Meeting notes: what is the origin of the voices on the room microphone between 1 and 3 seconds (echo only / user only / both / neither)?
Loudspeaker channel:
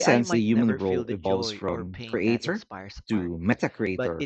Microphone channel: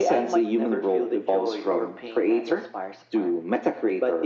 echo only